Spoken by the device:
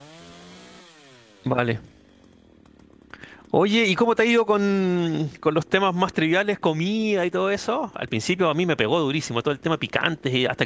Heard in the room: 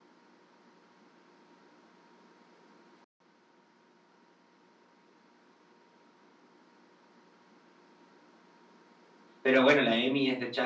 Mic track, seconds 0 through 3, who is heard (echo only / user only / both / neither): neither